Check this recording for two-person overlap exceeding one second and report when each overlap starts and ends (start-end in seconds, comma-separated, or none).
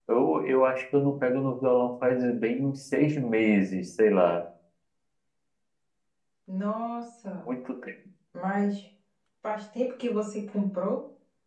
none